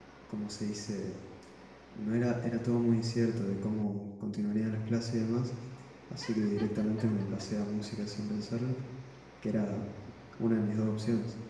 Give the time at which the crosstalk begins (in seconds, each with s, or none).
none